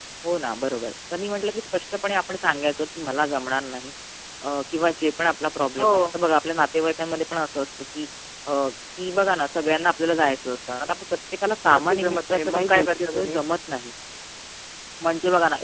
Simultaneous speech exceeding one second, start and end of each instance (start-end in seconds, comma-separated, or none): 11.7-13.4